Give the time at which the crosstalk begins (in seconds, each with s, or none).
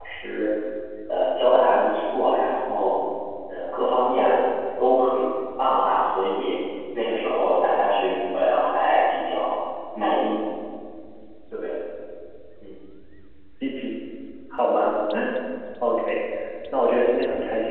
none